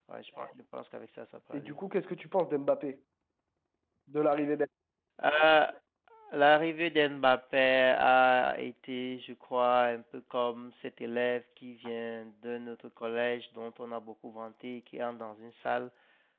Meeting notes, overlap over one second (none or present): none